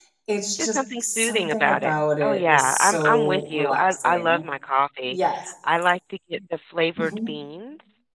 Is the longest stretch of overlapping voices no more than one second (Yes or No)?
No